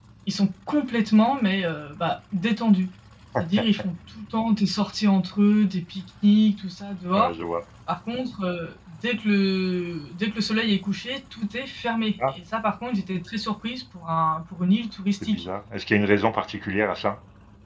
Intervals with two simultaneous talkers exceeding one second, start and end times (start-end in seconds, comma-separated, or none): none